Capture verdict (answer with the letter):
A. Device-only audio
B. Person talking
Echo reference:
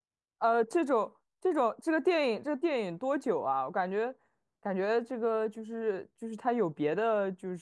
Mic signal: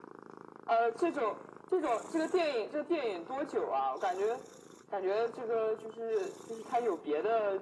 A